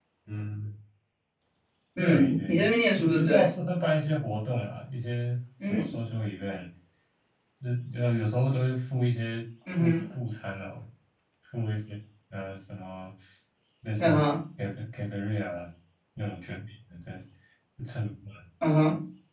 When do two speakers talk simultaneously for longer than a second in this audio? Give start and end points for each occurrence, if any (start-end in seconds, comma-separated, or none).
2.0-3.5